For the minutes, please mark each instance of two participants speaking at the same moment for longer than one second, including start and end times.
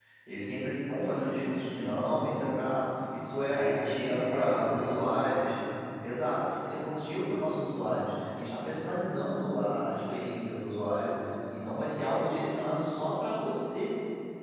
3.5-5.5

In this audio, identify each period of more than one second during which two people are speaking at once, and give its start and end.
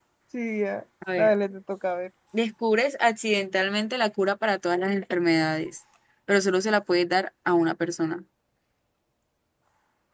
none

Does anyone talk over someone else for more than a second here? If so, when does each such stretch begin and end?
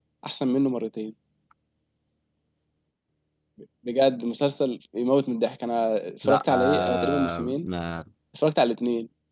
6.2-7.7

